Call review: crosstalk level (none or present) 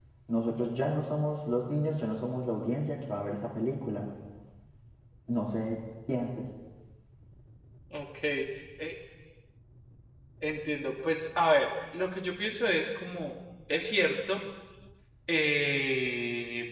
none